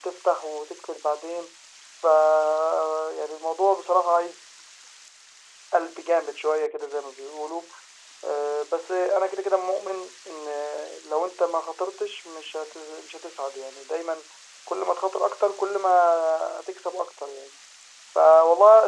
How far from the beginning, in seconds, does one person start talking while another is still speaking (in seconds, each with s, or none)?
none